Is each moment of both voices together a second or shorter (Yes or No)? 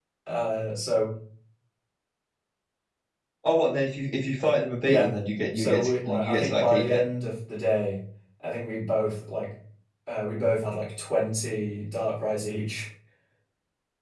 No